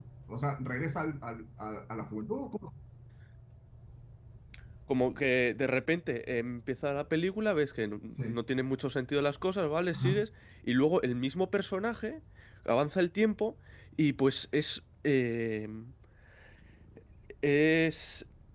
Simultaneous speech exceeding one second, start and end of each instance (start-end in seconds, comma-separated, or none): none